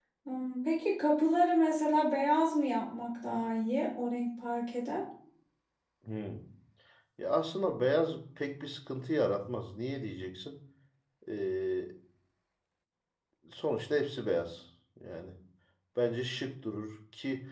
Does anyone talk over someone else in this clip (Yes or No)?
No